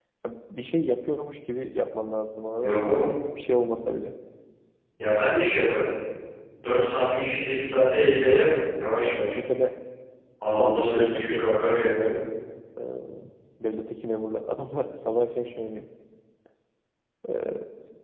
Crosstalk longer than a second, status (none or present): present